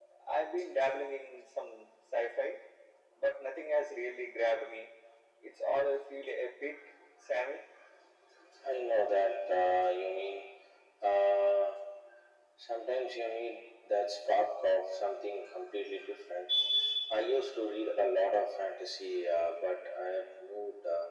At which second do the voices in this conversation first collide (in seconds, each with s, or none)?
none